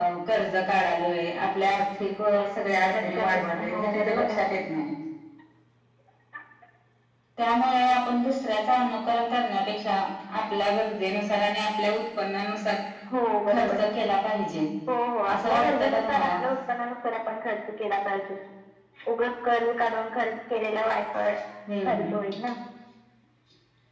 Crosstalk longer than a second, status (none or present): present